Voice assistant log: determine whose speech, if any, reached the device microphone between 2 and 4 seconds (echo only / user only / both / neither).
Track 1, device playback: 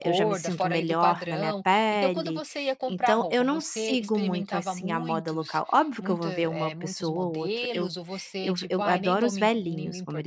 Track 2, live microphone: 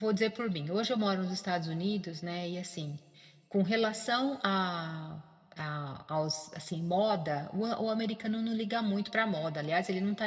user only